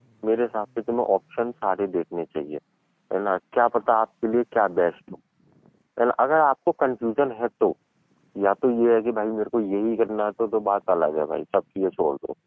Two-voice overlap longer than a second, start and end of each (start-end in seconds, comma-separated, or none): none